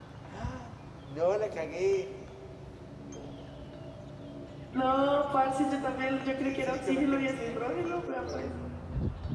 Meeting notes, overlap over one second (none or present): present